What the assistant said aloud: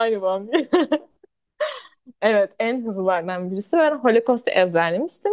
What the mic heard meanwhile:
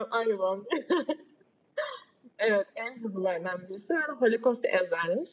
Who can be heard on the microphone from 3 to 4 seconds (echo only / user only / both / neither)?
echo only